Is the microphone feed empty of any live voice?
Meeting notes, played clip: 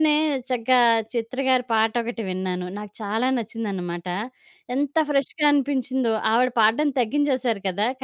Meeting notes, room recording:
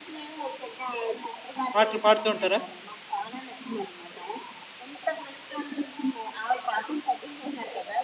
No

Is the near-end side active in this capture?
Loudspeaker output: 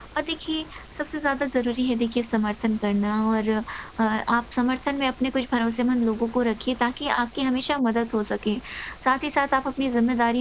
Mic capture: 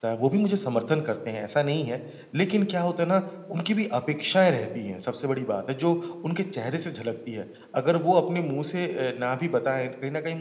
Yes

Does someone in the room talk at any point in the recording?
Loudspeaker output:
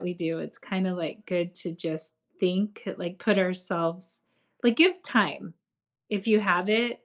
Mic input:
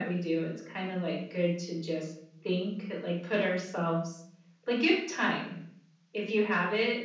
No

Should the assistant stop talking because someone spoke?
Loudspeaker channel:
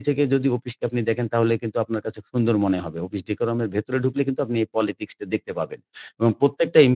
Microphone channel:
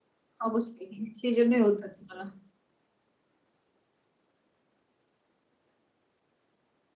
Yes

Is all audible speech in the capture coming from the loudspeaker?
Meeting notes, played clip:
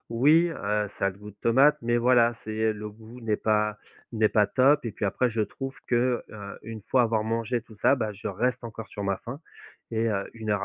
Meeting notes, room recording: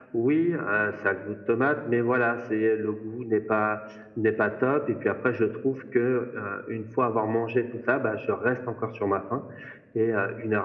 Yes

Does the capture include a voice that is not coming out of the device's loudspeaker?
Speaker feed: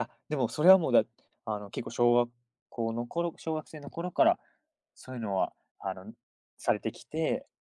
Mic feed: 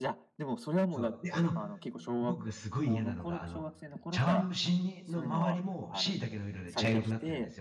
Yes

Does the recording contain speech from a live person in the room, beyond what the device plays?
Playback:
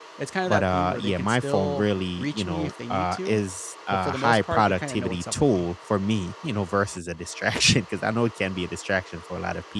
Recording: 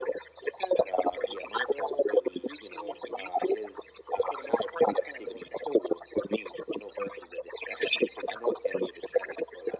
No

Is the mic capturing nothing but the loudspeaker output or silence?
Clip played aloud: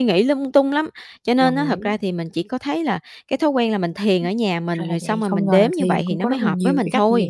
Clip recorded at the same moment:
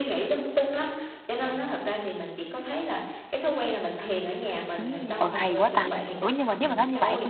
No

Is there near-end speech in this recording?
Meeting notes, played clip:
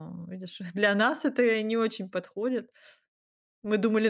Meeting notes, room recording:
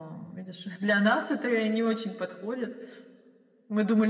No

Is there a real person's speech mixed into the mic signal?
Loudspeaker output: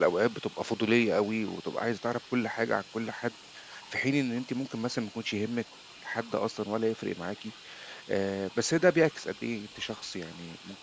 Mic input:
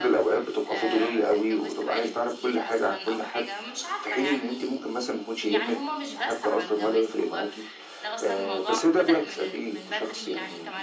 Yes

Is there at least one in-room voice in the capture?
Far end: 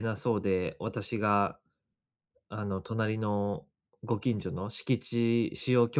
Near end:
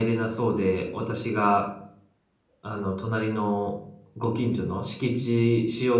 No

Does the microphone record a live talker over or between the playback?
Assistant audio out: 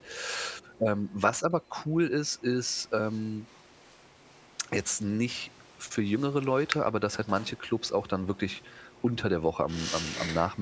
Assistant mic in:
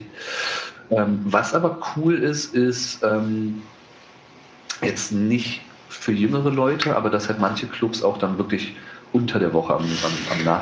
No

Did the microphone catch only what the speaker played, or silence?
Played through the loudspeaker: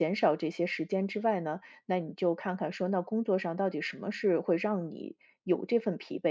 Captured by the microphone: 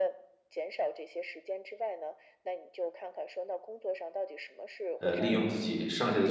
No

